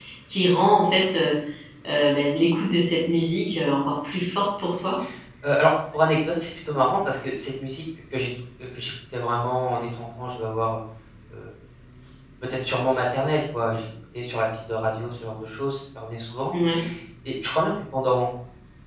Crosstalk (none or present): none